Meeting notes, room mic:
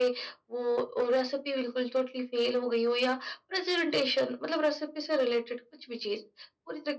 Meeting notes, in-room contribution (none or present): none